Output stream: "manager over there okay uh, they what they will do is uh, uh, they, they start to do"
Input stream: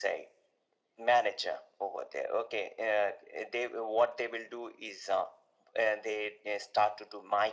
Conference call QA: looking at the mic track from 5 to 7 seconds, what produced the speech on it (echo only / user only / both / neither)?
echo only